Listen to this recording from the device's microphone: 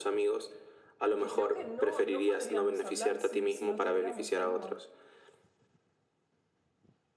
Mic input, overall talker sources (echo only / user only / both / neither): both